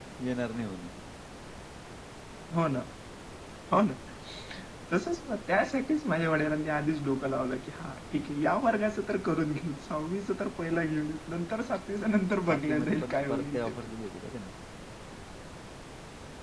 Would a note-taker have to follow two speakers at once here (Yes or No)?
Yes